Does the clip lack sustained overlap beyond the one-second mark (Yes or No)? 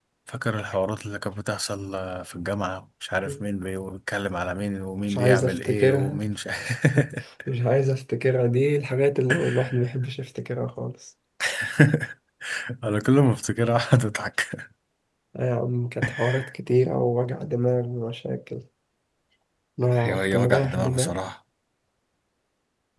No